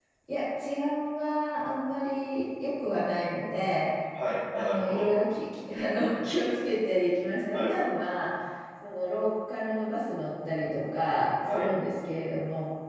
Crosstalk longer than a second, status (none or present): none